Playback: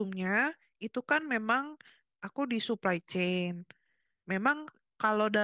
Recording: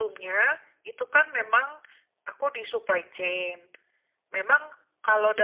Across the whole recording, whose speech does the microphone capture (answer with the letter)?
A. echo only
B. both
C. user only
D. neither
A